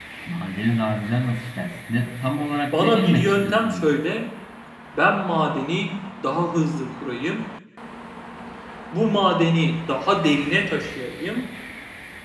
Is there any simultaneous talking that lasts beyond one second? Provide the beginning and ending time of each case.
2.7-4.0

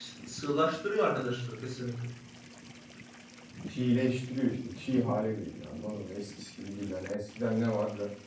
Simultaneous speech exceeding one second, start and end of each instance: none

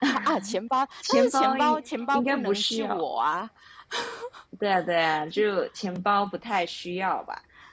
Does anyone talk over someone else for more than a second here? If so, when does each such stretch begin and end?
1.1-3.0

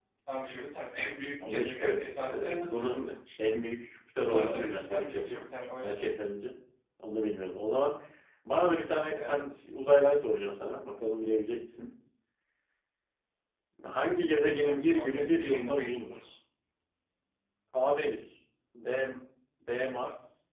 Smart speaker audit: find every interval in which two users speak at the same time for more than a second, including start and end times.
1.5-3.5, 4.2-5.4, 14.6-16.1

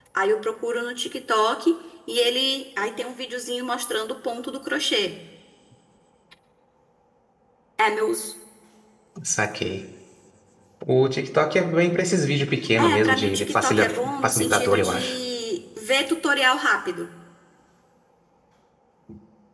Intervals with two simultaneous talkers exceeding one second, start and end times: 12.8-15.2

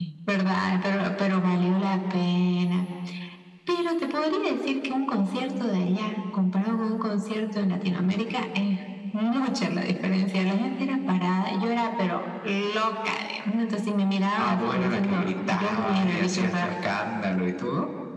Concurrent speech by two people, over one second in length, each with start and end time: 14.4-16.7

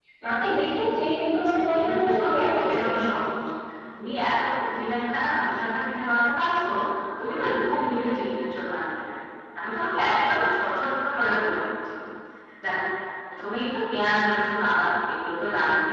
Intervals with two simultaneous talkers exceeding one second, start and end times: 1.5-3.2

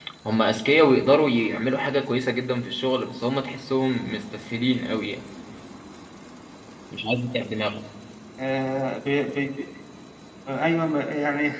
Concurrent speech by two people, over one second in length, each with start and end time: none

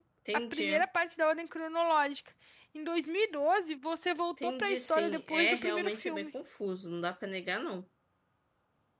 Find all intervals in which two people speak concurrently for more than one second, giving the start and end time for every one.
4.4-6.3

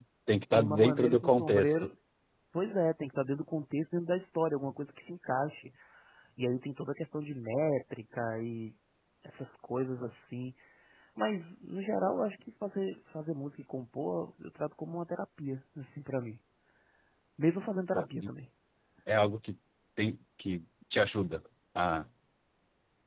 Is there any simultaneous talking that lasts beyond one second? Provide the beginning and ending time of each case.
0.5-1.8

